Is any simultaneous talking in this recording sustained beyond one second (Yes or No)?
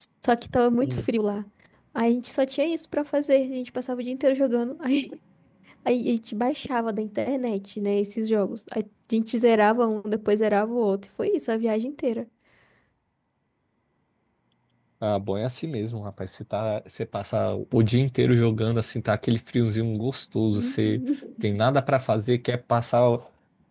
No